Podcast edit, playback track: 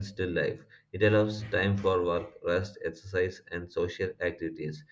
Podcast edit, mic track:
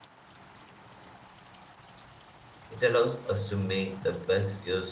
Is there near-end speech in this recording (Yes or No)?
Yes